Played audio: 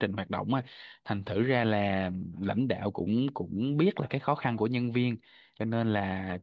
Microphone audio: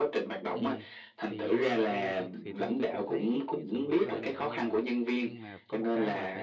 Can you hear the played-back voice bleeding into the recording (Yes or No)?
Yes